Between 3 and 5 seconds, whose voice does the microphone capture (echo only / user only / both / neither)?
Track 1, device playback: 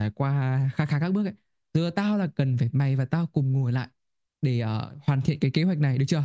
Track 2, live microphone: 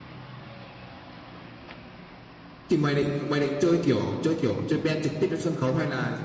user only